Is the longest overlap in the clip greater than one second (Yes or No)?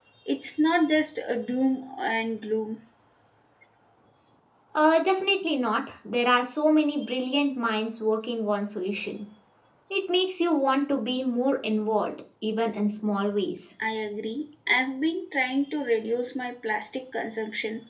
No